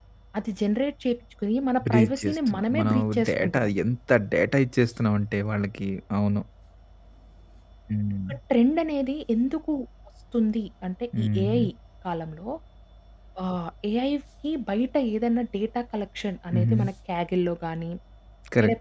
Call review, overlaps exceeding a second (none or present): present